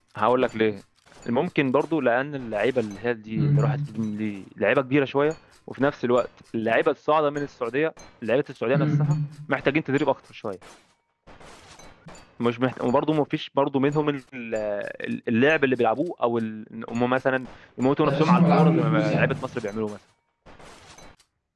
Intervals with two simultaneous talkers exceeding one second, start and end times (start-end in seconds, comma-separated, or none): 18.0-19.2